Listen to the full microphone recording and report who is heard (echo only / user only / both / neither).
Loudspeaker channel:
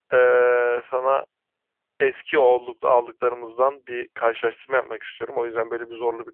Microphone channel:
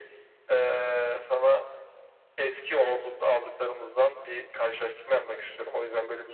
echo only